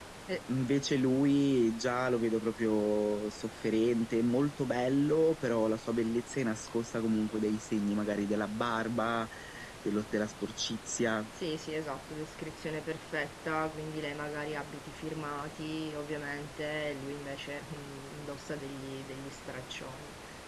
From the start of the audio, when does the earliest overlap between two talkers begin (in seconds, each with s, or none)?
none